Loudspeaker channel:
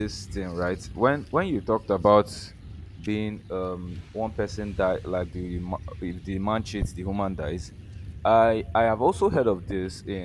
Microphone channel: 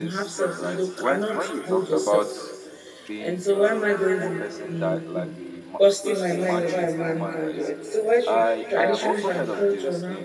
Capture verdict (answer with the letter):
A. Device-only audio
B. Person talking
B